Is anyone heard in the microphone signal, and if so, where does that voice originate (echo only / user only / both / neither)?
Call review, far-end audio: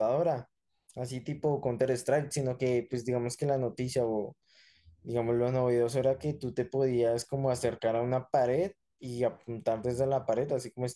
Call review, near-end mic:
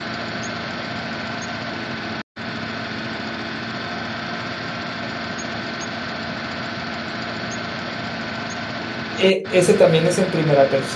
user only